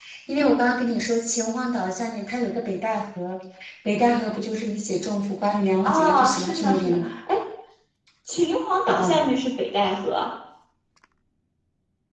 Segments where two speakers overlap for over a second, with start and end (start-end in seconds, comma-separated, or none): 5.8-7.1